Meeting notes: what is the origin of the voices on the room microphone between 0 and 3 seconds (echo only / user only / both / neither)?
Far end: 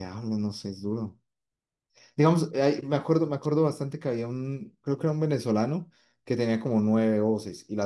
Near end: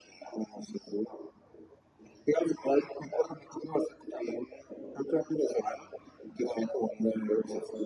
echo only